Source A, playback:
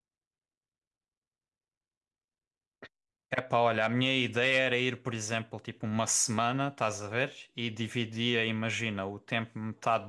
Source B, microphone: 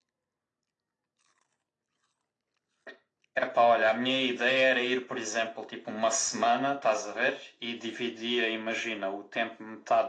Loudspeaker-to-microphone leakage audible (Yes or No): Yes